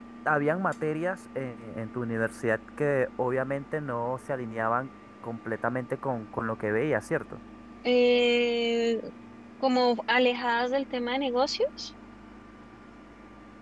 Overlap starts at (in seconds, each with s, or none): none